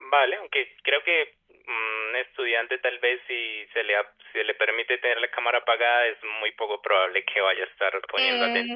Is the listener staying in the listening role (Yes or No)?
No